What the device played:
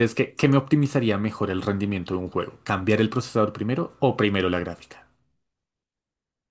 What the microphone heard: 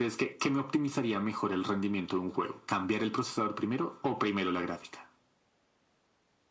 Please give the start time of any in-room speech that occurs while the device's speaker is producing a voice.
none

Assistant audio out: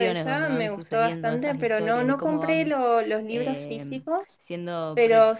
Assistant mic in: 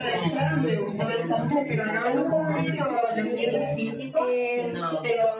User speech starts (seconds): 2 s

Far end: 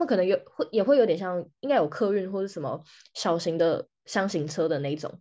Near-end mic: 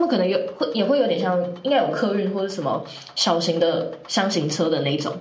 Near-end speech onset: none

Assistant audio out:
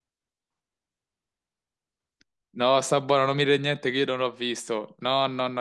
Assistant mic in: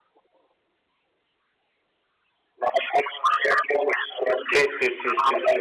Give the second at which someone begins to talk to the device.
4 s

